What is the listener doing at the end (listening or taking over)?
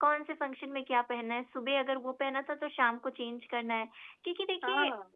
listening